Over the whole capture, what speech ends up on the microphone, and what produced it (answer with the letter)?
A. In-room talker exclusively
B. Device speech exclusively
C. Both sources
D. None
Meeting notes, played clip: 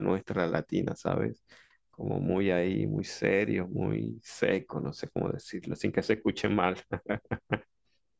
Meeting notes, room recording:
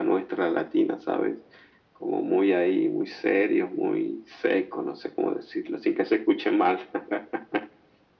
B